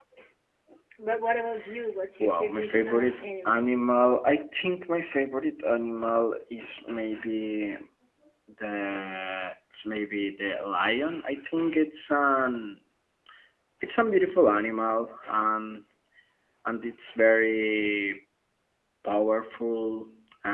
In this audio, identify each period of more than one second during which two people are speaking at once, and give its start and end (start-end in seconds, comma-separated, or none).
2.2-3.7